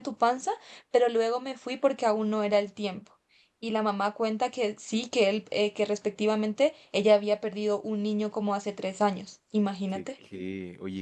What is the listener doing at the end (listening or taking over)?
taking over